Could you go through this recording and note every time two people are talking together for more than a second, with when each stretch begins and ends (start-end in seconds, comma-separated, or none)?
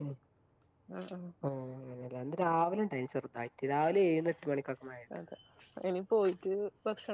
none